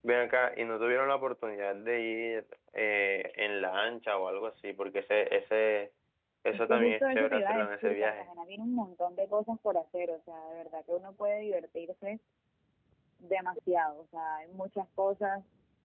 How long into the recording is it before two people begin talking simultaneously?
6.5 s

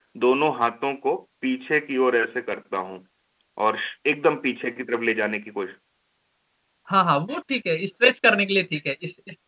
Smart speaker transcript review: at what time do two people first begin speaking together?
none

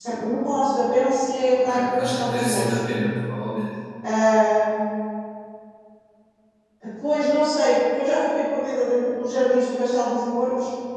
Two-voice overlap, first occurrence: 1.5 s

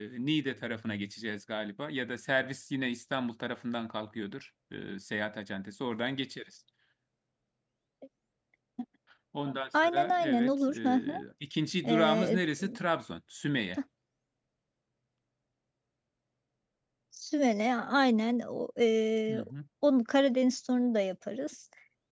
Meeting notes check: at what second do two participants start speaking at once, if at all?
9.8 s

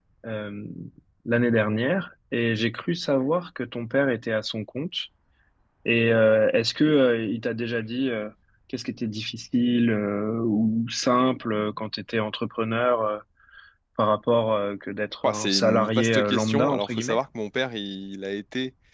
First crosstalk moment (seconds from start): 15.2 s

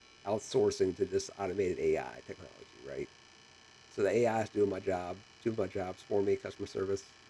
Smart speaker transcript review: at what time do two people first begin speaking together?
none

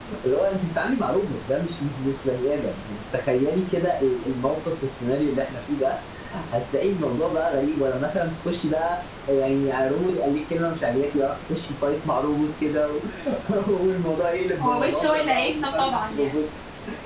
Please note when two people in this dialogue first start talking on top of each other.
14.6 s

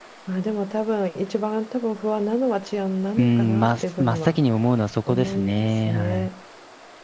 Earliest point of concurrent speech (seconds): 3.2 s

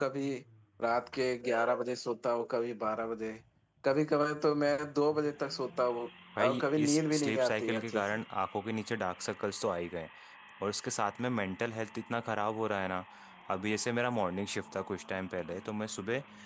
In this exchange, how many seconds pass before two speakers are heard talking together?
6.4 s

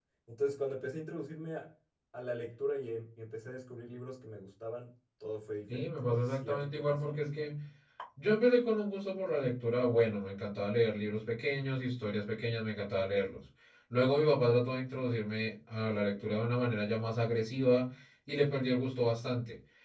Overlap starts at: 5.7 s

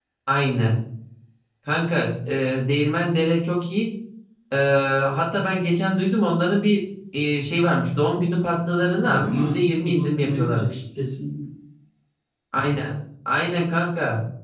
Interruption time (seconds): 9.0 s

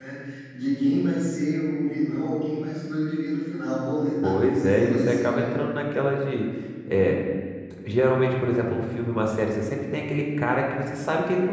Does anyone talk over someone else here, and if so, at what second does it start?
4.2 s

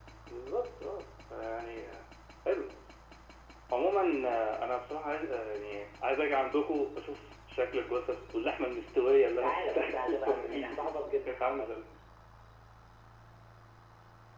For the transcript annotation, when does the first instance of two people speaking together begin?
9.4 s

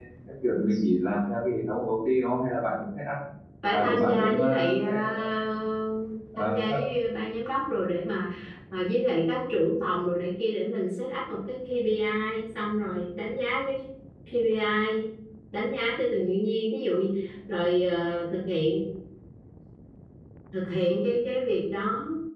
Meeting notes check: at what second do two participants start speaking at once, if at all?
3.7 s

